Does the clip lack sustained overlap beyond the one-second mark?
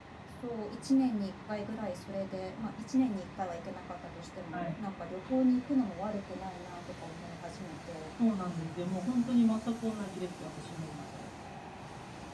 Yes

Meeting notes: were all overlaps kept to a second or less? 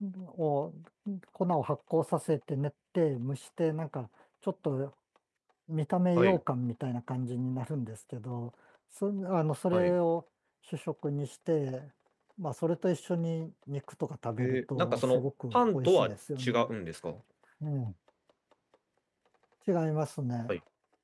No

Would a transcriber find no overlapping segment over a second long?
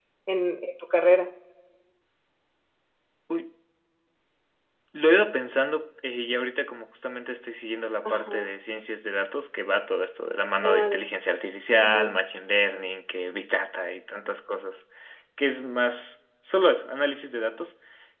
Yes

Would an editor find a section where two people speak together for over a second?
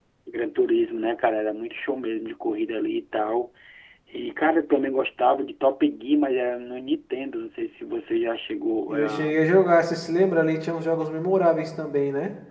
No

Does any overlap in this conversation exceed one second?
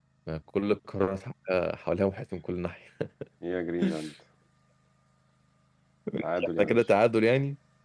No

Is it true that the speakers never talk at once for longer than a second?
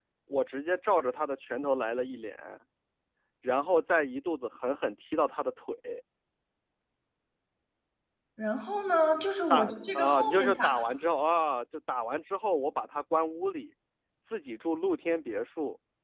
No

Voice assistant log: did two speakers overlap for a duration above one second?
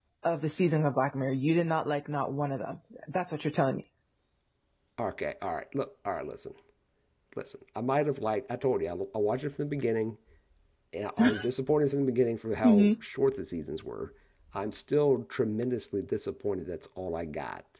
No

